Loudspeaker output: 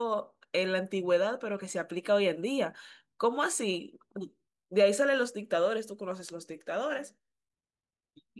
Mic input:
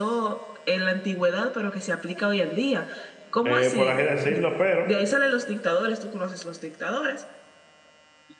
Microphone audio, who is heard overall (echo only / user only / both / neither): both